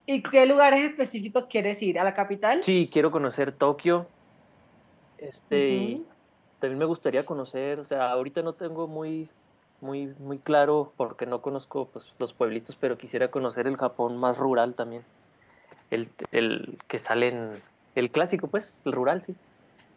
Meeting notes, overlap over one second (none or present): none